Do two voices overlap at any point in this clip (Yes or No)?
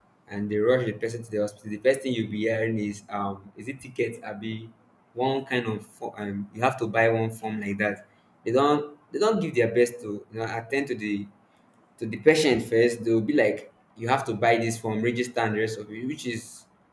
No